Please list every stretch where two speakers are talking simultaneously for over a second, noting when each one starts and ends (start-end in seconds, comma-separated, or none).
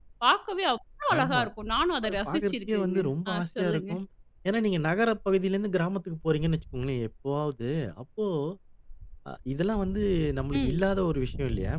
2.0-3.9